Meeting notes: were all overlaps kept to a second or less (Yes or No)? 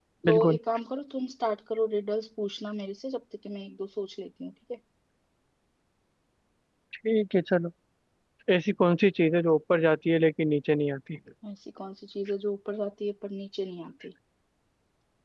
Yes